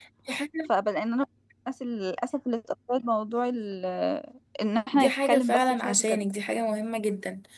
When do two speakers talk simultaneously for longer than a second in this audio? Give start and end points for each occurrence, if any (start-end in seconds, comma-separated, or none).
4.9-6.2